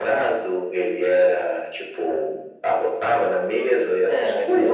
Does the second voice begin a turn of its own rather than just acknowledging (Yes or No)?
Yes